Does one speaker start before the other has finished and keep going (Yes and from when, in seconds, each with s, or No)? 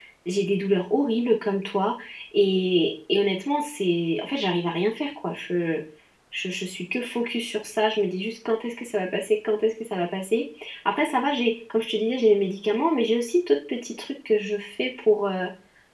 No